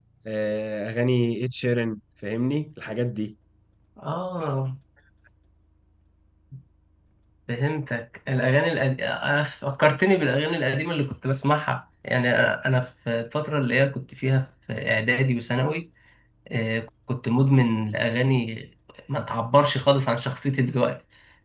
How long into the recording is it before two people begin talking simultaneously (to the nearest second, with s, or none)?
none